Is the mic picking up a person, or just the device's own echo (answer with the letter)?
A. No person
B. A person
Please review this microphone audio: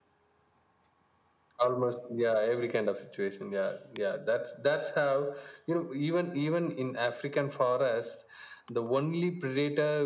A